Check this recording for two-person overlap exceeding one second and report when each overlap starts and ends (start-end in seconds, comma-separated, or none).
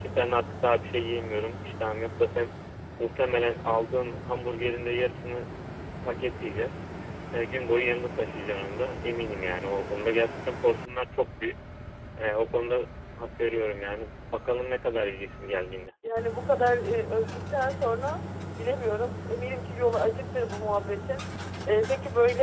none